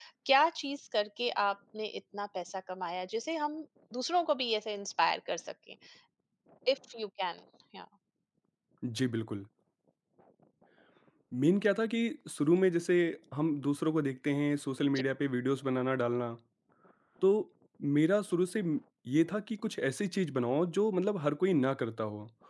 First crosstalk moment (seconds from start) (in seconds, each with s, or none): none